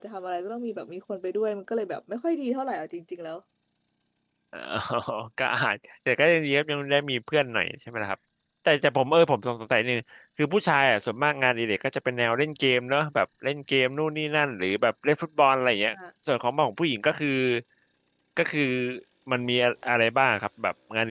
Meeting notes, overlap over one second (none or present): none